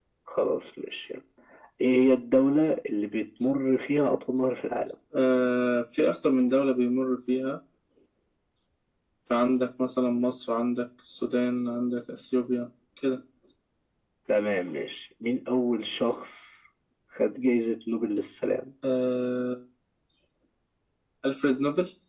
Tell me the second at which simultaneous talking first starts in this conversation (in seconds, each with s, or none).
none